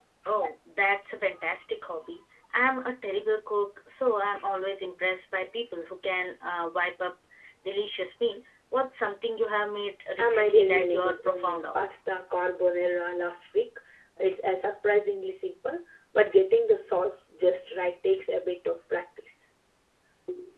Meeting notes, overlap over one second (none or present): present